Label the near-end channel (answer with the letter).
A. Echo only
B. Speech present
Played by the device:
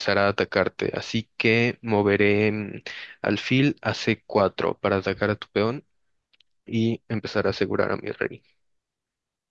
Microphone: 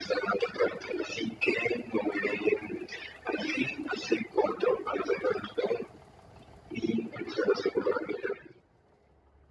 A